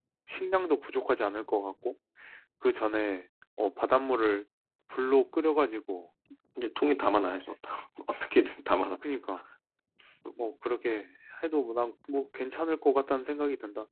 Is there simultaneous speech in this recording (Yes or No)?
No